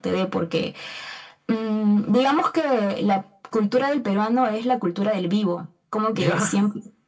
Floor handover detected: No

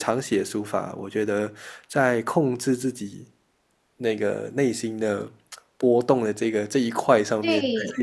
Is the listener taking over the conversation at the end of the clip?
Yes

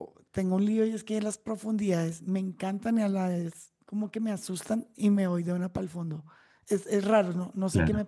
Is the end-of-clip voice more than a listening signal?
No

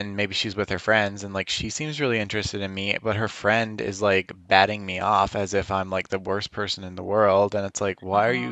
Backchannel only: Yes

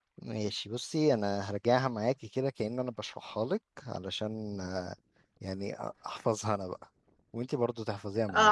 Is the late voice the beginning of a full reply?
Yes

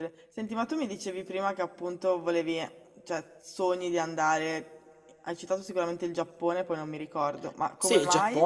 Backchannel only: No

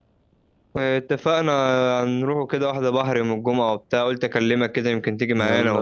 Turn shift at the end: Yes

